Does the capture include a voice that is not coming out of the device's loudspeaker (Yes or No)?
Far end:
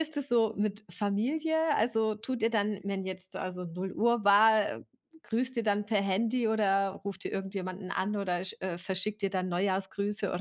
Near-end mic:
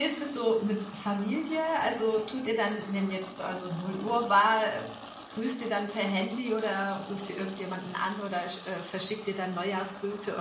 No